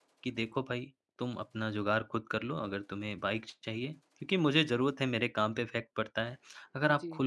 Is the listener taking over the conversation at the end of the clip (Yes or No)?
No